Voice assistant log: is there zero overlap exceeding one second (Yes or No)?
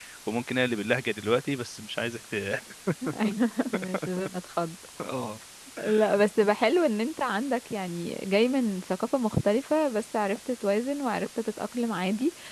Yes